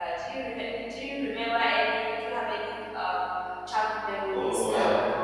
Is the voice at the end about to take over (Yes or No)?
Yes